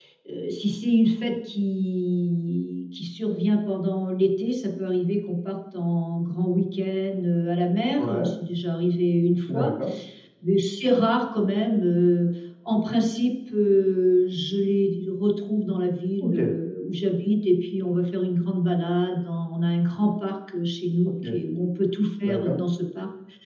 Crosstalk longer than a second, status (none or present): none